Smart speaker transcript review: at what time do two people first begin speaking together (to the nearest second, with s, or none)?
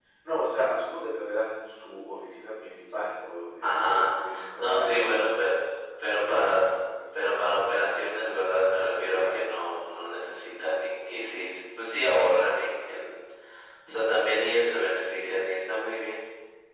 4 s